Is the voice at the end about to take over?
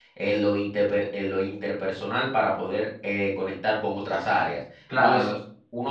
No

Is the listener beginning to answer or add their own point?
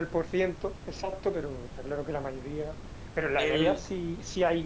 No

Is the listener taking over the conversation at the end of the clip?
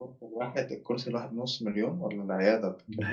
Yes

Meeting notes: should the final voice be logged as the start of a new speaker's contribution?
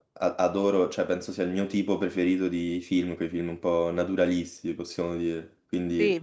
Yes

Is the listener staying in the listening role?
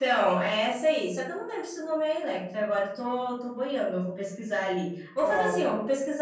No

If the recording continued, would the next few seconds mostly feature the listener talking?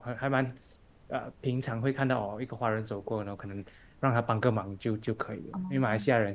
No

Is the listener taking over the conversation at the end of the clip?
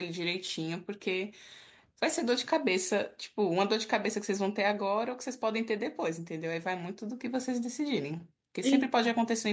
No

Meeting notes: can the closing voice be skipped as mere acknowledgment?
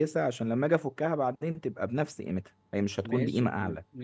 No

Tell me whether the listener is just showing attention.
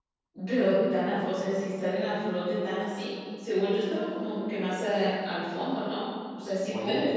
No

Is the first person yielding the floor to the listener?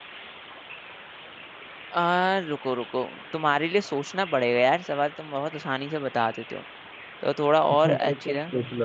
Yes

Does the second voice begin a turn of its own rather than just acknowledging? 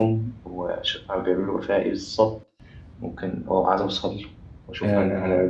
Yes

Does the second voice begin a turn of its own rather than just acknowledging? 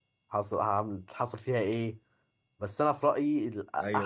Yes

